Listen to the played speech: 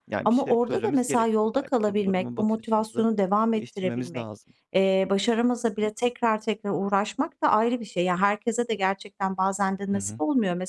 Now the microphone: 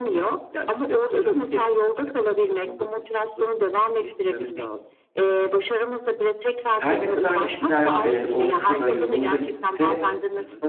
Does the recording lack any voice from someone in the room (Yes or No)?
No